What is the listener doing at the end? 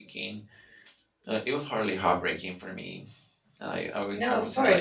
taking over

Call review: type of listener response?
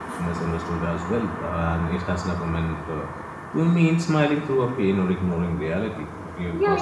taking over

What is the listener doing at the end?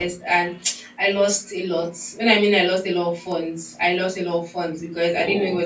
listening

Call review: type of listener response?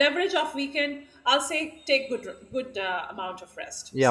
taking over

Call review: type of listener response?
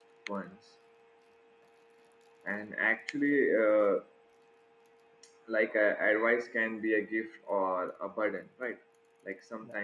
listening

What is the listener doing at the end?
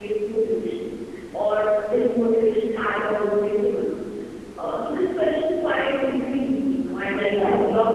taking over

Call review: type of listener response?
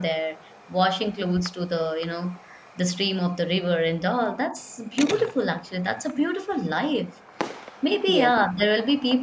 listening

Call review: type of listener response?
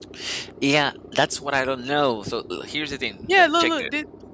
taking over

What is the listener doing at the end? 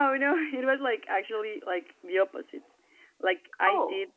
listening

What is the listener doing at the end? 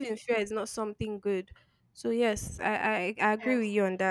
taking over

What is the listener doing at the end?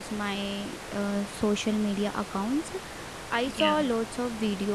listening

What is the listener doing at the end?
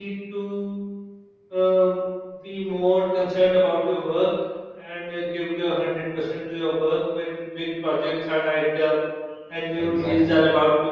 listening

